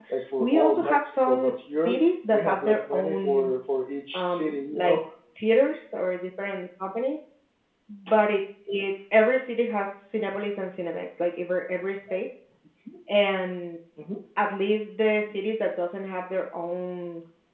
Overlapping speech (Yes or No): Yes